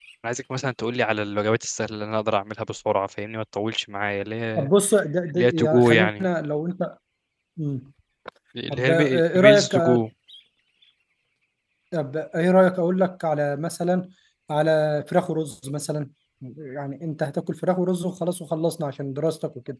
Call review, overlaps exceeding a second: present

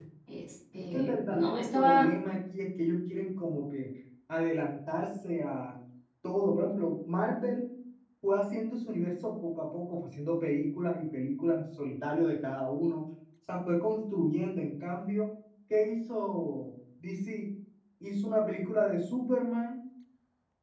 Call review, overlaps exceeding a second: present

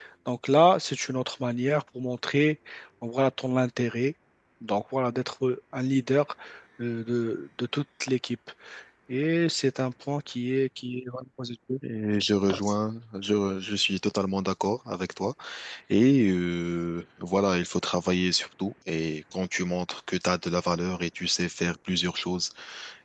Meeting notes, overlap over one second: none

